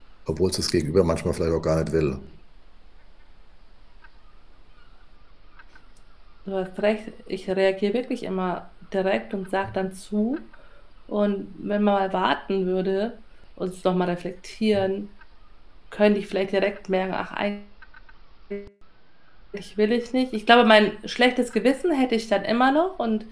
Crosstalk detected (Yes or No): No